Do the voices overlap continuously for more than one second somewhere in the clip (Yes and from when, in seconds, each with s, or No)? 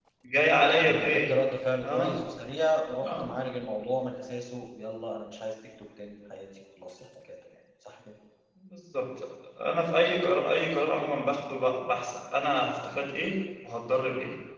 No